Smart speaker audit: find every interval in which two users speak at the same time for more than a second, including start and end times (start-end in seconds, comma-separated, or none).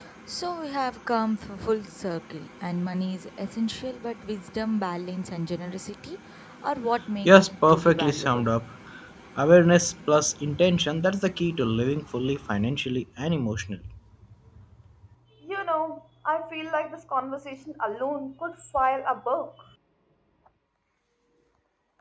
7.2-8.4